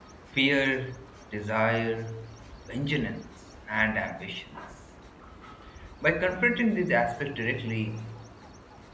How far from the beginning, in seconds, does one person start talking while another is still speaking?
none

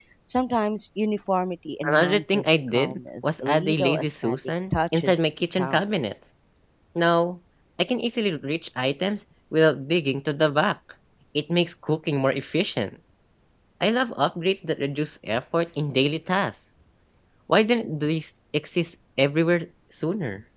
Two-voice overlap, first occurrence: 1.8 s

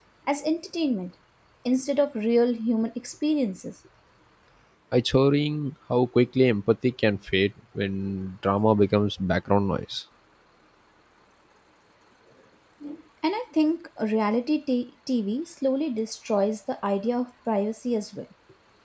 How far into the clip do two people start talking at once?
none

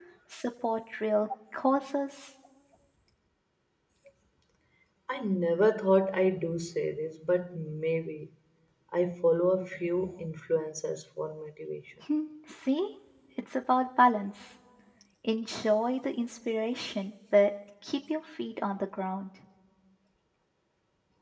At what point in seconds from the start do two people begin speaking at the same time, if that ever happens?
none

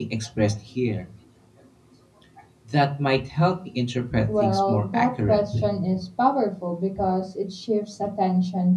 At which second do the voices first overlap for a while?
4.3 s

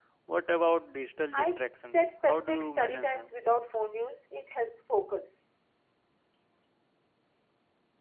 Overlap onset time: 1.3 s

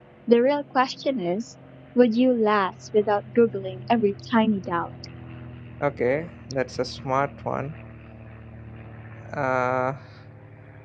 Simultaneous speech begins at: none

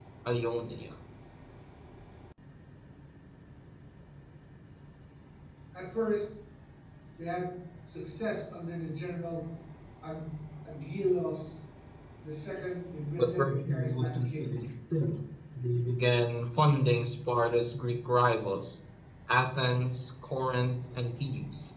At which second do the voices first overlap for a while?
13.2 s

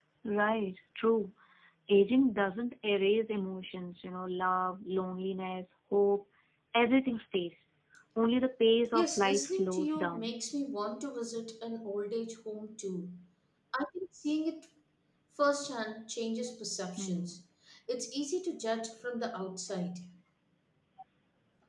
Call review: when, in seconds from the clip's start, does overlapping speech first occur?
8.9 s

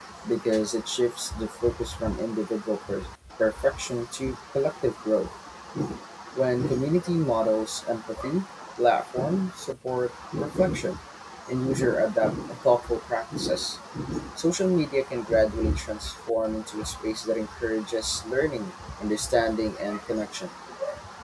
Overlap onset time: none

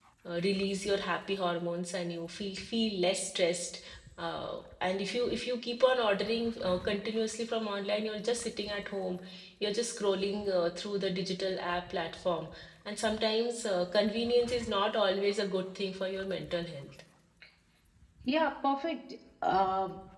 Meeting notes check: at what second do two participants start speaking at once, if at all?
none

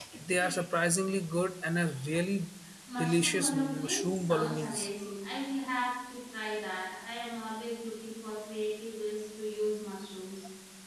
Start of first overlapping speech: 3.0 s

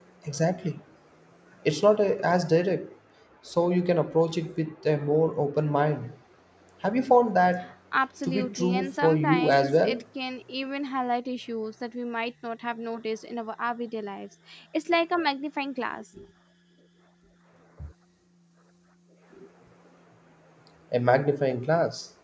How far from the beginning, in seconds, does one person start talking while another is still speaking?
8.2 s

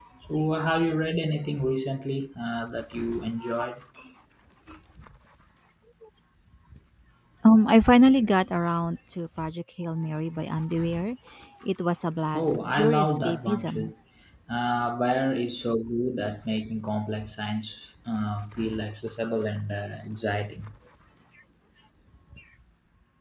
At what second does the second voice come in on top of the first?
12.4 s

